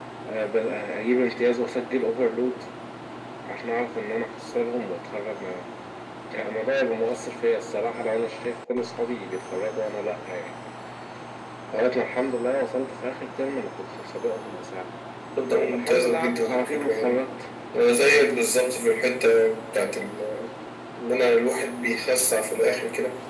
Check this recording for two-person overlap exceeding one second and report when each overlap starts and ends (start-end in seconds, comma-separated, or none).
15.7-17.2